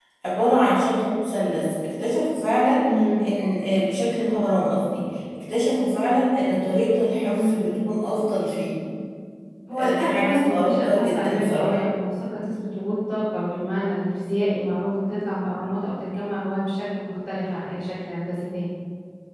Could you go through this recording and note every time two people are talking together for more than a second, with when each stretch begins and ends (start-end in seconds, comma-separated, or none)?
9.7-11.8